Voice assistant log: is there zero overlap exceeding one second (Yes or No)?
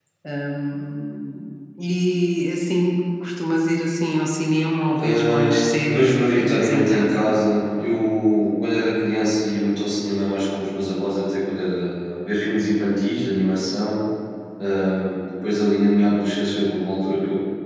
No